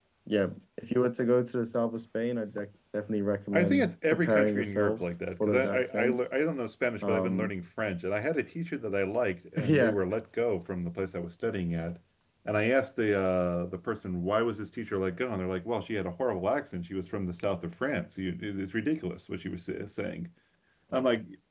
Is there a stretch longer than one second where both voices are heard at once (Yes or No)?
Yes